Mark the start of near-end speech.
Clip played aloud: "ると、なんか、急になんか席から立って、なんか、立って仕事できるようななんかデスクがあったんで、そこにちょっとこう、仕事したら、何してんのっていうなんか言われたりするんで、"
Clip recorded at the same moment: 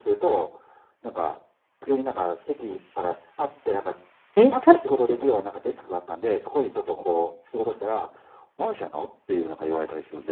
4.4 s

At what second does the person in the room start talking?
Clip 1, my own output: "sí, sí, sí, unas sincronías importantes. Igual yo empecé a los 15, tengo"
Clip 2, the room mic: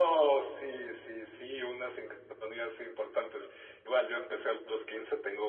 none

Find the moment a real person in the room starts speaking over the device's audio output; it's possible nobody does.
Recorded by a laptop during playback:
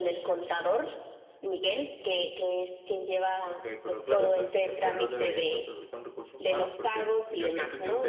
3.4 s

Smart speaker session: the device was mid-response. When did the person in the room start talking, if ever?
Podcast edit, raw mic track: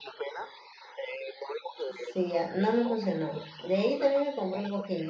1.9 s

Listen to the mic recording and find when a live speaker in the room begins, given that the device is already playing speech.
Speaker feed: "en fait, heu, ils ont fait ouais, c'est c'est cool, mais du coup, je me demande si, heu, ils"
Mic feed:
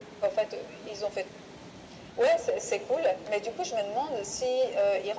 none

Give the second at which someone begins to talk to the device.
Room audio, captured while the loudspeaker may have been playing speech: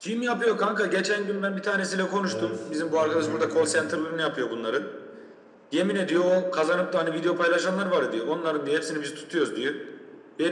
2.2 s

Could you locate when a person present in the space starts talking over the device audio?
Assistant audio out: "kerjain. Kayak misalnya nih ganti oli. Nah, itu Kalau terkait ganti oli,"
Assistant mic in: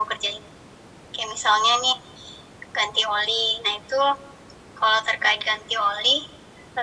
none

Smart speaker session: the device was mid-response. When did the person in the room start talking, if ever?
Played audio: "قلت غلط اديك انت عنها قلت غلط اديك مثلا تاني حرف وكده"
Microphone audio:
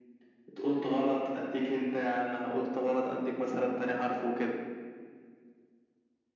none

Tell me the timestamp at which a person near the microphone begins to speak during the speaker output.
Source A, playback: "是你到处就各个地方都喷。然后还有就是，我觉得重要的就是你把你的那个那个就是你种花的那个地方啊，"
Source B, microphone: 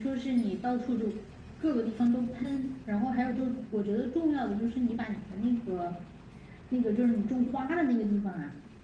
none

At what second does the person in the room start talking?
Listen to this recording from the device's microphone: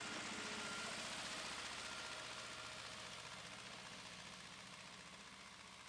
none

